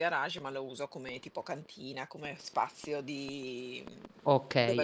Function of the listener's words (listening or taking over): taking over